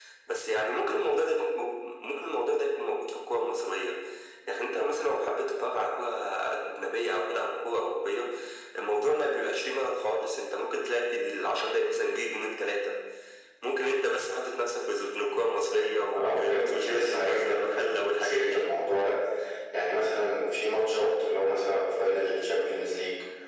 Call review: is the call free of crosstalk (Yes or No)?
No